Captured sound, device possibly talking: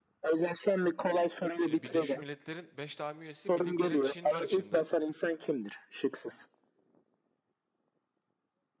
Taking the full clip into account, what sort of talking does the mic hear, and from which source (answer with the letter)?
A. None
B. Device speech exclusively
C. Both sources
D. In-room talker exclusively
C